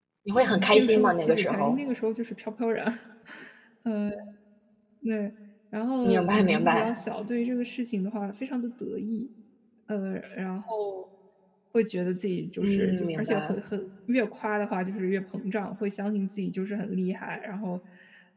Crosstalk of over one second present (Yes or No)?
Yes